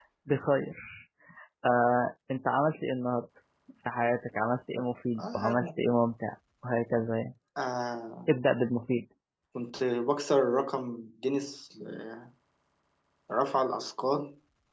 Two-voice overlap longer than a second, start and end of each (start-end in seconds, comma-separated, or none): none